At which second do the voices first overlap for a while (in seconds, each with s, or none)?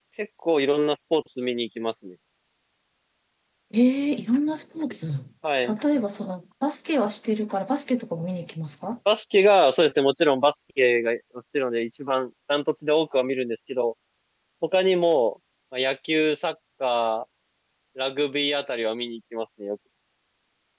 none